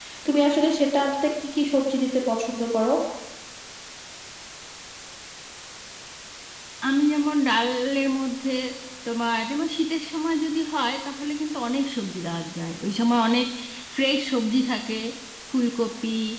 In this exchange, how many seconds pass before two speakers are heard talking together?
none

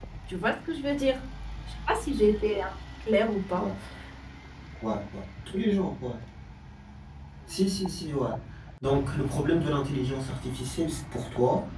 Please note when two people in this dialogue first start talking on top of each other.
none

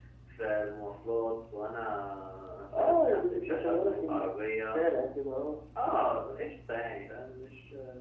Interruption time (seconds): 2.7 s

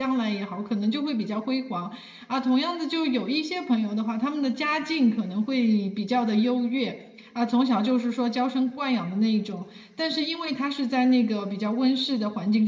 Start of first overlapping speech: none

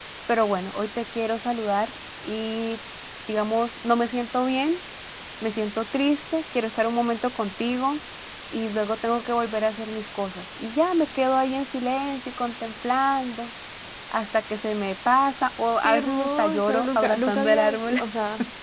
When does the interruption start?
15.8 s

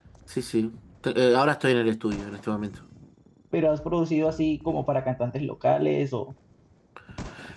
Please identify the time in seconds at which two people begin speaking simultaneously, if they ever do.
none

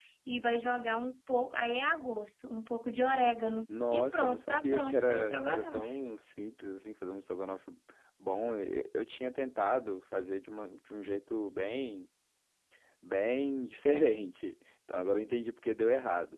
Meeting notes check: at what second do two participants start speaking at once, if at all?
3.7 s

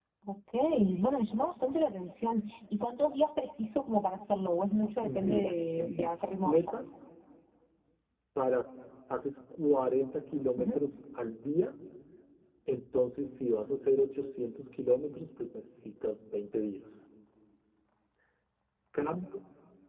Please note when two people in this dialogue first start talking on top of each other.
5.2 s

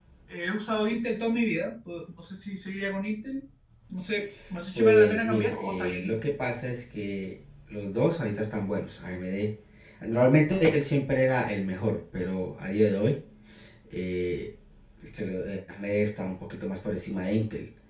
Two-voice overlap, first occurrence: 4.8 s

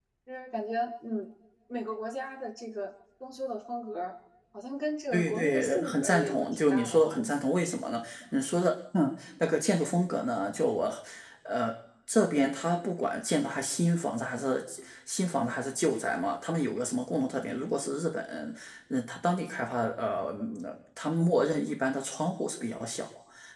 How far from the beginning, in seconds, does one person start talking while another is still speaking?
5.1 s

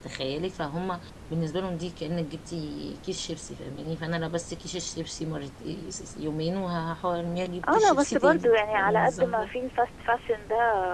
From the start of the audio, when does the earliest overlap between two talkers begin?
7.6 s

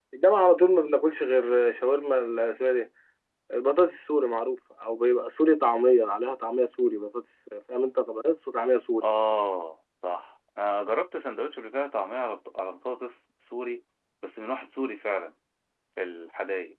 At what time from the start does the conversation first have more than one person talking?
none

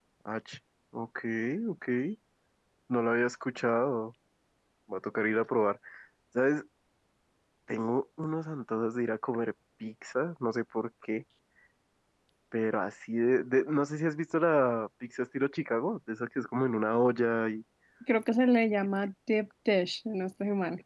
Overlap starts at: none

